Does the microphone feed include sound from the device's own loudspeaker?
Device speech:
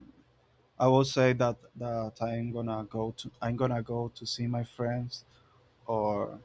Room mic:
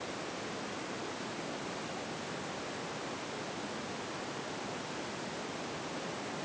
No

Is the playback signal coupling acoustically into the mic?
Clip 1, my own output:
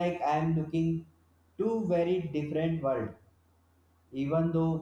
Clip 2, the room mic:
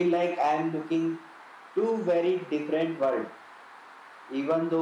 Yes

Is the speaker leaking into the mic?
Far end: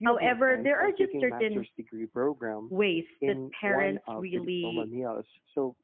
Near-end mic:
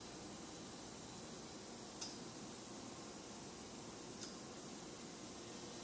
No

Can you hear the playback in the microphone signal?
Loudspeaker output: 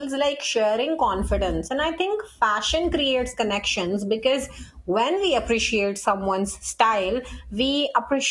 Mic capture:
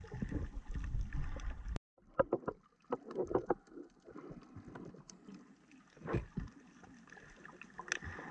No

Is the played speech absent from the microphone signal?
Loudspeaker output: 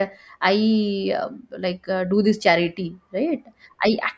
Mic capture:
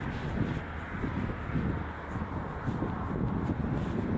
Yes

